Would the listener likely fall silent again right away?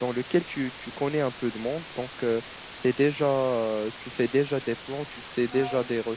Yes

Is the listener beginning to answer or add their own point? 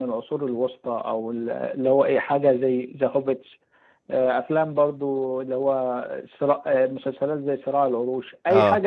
No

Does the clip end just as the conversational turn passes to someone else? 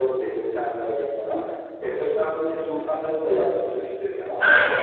Yes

